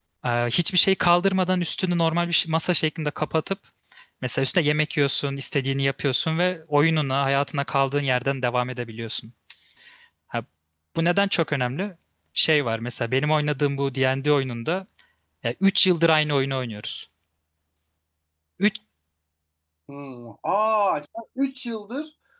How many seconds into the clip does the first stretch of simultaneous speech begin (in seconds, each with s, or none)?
none